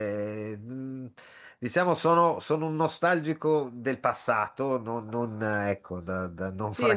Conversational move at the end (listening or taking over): taking over